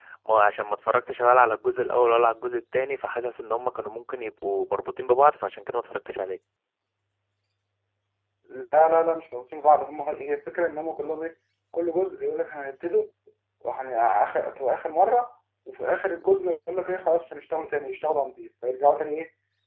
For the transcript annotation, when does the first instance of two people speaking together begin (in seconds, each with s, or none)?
none